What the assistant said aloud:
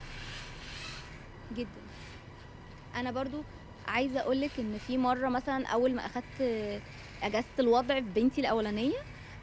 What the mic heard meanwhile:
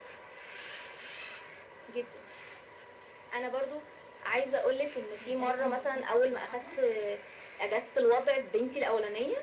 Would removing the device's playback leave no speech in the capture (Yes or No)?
No